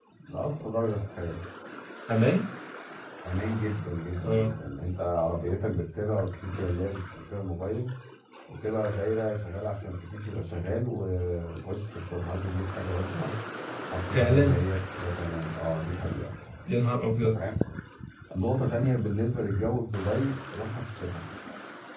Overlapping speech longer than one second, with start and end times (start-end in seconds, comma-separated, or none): none